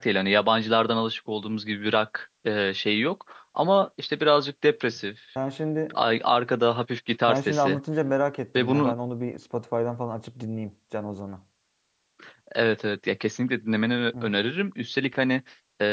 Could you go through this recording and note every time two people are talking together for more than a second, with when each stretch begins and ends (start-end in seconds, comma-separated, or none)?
none